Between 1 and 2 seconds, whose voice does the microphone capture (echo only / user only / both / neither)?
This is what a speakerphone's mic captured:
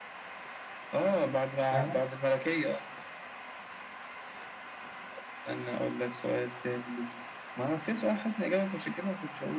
both